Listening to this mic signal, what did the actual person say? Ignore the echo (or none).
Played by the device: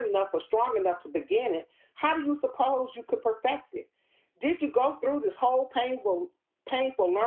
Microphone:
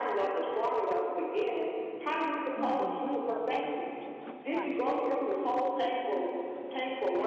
Even we have believed in Jesus Christ,